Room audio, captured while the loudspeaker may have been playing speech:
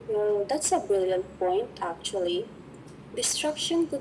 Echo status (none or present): present